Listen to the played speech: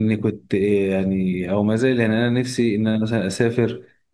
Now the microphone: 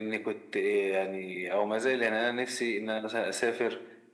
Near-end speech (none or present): none